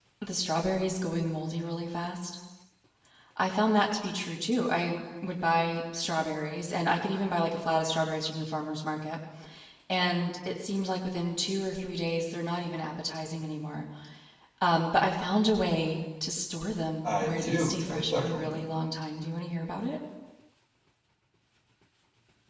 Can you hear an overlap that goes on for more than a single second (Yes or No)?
Yes